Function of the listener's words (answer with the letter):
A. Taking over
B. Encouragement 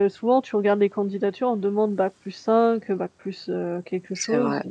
A